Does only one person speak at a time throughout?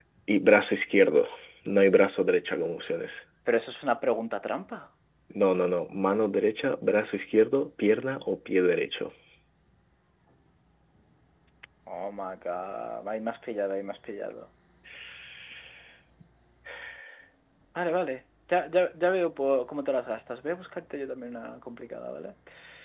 Yes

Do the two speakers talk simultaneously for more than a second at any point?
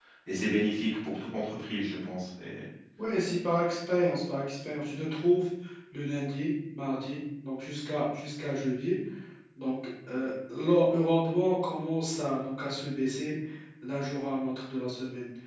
No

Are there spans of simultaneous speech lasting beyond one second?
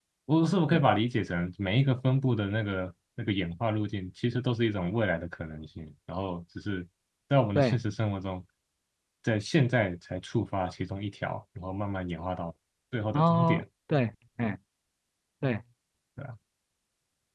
No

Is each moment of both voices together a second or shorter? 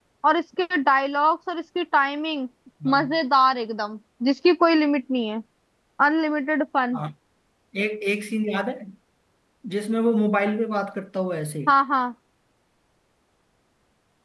Yes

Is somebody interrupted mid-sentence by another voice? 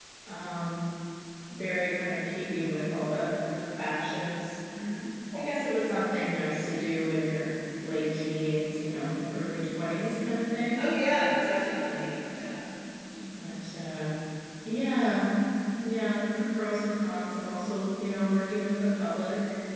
No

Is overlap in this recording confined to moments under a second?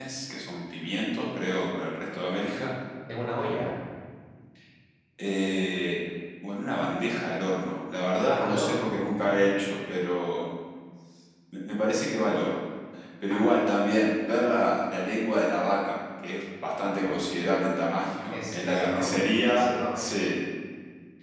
No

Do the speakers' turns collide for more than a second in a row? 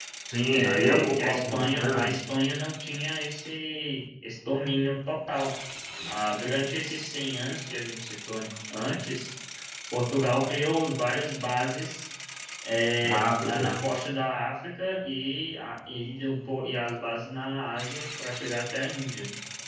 Yes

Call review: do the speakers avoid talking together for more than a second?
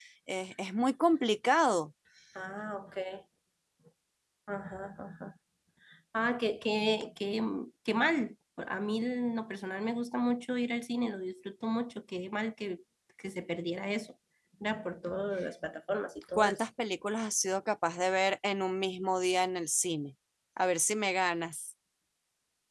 Yes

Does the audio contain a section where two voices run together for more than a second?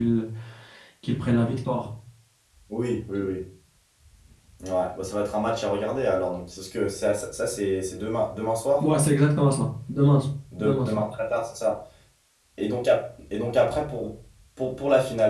No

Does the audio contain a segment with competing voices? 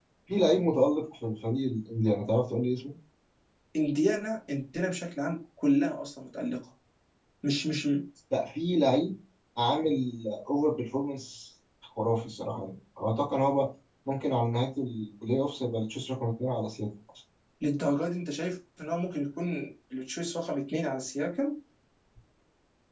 No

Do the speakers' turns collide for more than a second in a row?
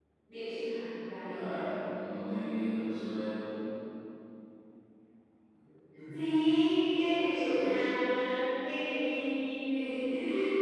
No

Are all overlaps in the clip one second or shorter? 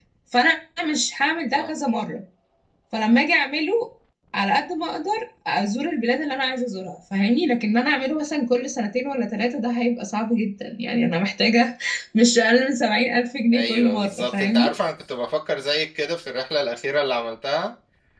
No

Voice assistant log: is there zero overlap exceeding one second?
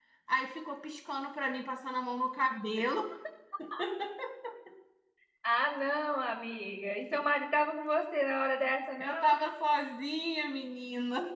Yes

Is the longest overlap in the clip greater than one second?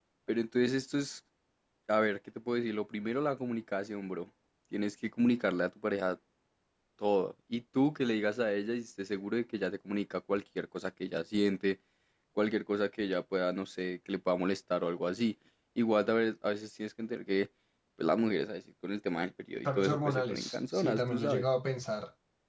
Yes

